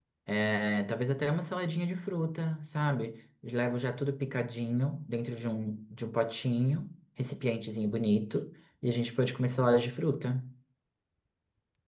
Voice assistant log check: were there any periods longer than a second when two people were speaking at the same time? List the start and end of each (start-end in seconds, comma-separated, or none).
none